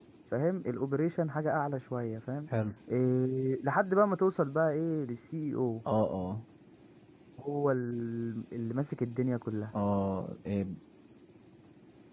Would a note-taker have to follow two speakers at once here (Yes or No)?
No